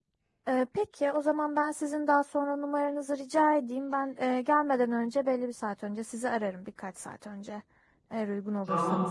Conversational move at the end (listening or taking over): taking over